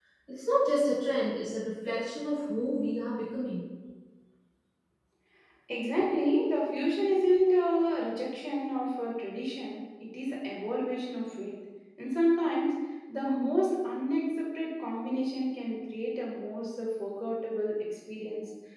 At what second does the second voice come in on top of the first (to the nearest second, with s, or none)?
none